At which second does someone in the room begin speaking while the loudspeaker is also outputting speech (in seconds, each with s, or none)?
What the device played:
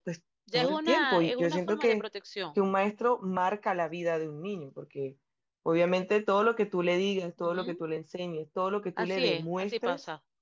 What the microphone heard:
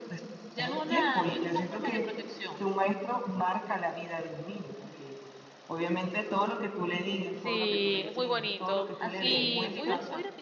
7.3 s